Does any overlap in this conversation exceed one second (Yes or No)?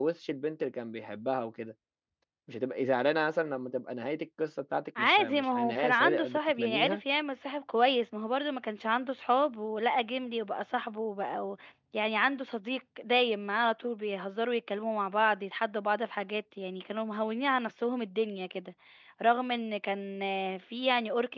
Yes